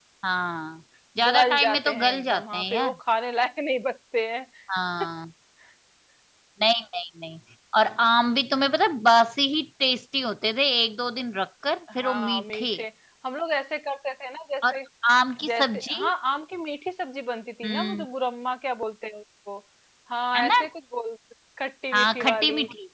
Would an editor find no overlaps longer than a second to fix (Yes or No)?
No